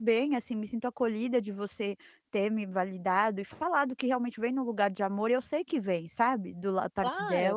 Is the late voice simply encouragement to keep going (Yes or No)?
No